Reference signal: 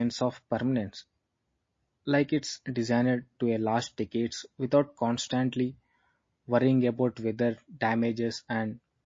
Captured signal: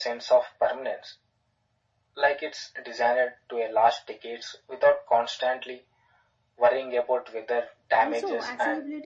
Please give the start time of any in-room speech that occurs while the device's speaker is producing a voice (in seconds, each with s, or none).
8.0 s